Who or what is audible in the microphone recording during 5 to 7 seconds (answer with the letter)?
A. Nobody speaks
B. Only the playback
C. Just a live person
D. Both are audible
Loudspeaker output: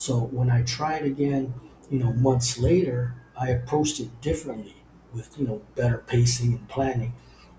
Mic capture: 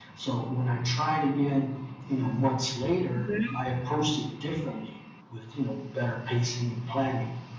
B